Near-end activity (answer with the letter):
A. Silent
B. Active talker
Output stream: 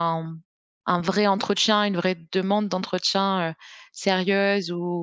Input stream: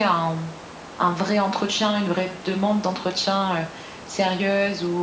A